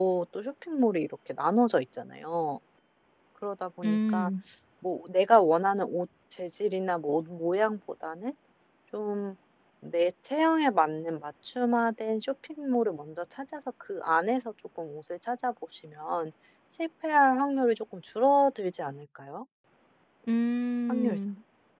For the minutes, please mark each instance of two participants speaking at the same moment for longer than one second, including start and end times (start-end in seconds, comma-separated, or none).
none